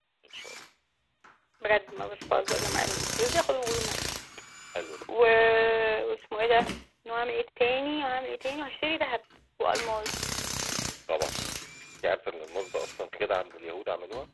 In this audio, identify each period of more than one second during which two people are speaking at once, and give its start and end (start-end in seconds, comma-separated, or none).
none